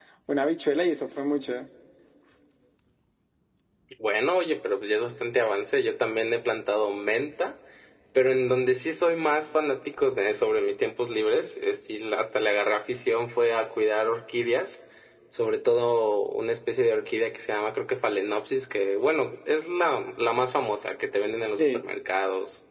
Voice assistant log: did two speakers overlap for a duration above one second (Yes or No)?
No